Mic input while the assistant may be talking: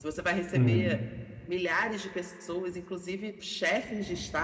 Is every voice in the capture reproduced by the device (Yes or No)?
No